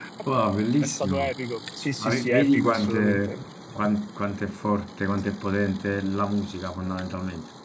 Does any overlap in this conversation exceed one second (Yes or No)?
Yes